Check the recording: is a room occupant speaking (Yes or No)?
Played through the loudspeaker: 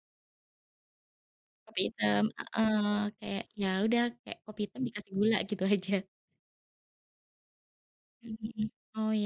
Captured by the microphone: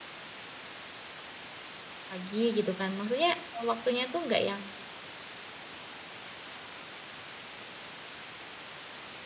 Yes